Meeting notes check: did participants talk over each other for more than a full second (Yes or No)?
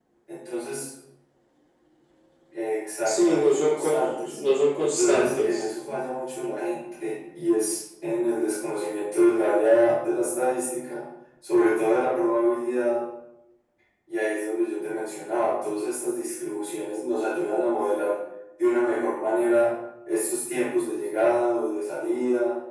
Yes